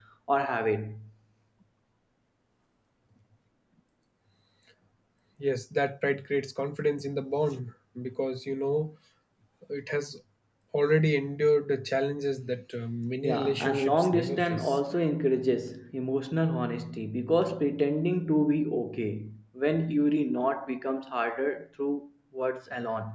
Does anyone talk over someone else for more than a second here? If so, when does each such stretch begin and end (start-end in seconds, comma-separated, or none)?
13.2-14.8